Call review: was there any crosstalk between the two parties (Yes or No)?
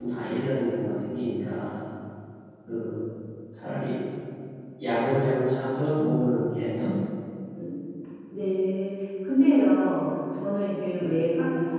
No